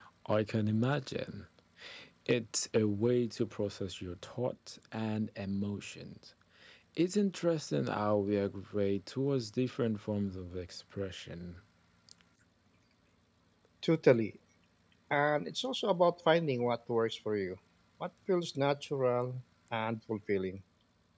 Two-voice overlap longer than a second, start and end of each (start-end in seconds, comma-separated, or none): none